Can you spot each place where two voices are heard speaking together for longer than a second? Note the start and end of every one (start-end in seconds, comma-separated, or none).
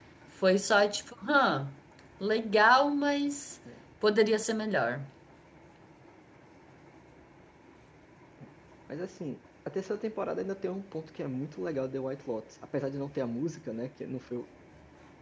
none